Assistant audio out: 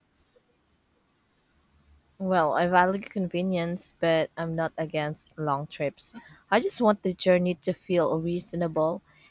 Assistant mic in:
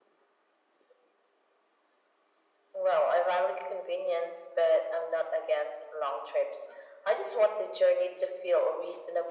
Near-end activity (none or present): none